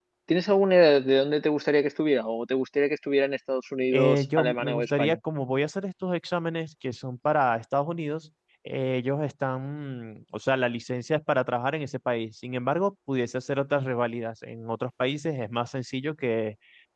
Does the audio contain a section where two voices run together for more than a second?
Yes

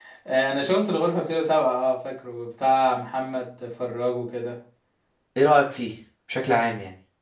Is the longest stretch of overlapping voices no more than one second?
Yes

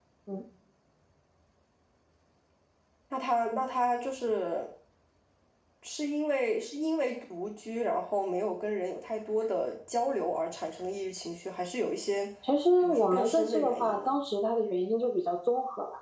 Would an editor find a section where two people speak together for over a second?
Yes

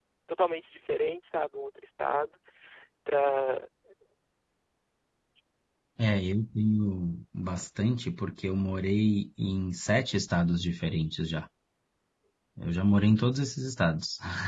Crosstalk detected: No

